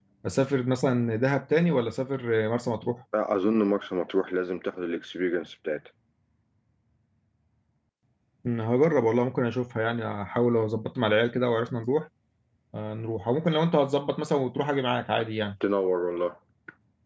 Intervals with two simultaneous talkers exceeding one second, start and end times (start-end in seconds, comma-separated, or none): none